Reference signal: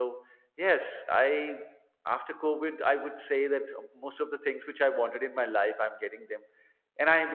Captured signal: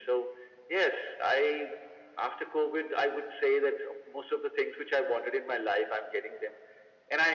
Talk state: echo only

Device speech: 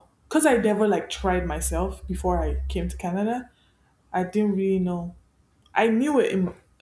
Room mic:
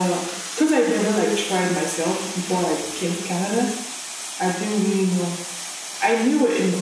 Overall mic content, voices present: echo only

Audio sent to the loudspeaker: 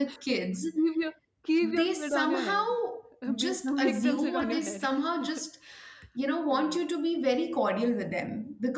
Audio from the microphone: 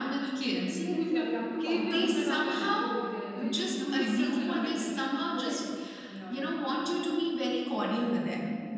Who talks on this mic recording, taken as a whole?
both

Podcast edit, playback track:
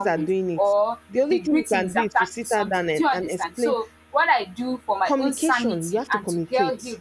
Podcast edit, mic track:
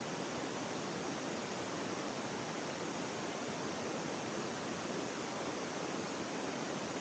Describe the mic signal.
neither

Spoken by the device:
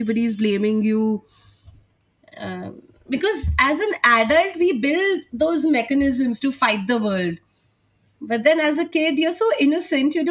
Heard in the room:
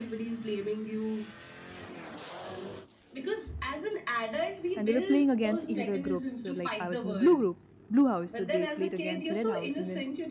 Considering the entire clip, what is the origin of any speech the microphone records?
both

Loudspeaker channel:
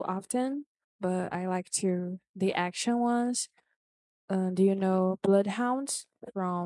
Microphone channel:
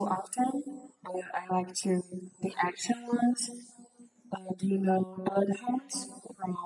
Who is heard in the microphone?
echo only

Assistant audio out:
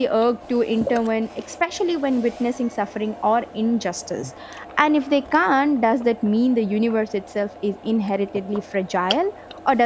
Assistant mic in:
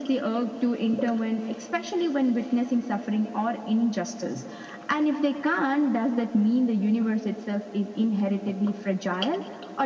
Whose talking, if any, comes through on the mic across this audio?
echo only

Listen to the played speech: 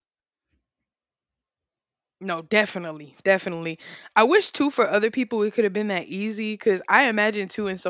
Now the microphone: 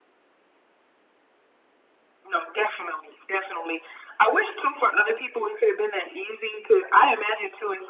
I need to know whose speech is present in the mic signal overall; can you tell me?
echo only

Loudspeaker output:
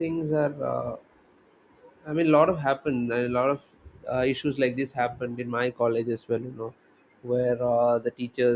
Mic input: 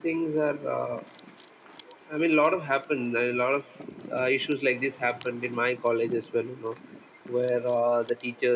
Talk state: echo only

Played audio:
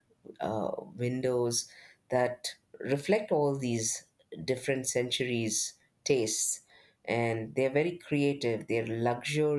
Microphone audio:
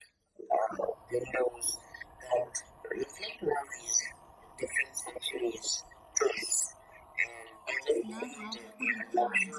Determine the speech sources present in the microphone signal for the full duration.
both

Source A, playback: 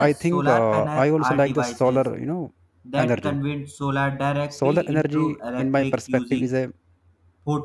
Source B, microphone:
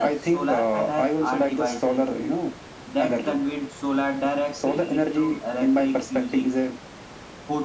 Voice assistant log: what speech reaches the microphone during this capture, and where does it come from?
echo only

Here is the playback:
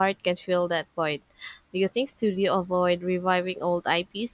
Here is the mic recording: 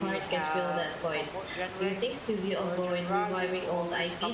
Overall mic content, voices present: both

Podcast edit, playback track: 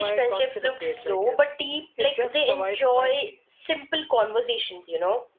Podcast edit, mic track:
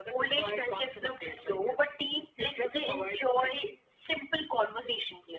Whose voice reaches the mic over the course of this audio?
echo only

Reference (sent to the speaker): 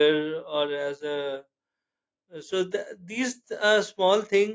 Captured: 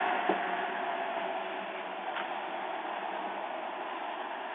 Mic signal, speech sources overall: neither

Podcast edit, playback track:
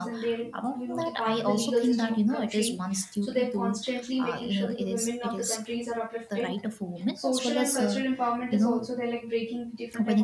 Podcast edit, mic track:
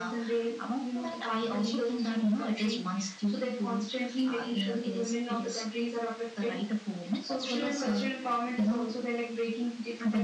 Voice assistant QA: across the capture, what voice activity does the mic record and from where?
echo only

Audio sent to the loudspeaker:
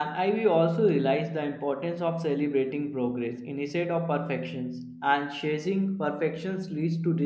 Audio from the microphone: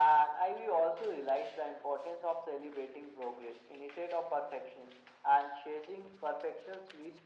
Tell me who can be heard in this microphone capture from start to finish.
echo only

